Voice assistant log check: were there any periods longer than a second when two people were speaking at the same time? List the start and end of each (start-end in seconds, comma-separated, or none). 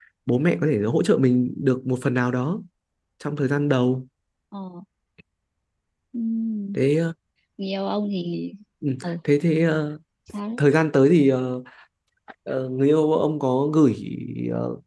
none